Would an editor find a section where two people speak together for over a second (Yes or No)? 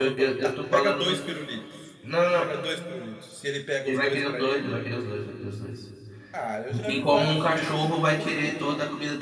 Yes